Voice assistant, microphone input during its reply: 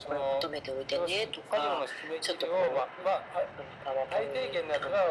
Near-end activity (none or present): none